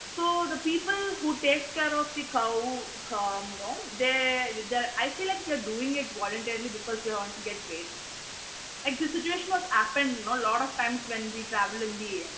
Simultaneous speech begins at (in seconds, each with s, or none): none